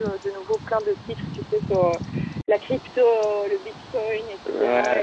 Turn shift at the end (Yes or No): No